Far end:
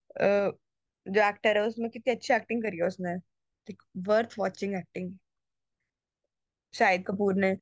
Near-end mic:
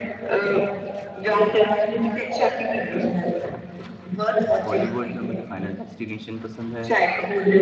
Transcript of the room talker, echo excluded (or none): बॉलीवुड में मुझे फाइनल डेस्टिनेशन पसंद है